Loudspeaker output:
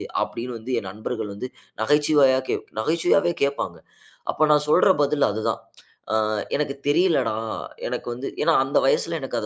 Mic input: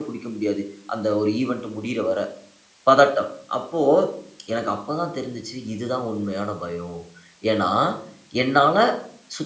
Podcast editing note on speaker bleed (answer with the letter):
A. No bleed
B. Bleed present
A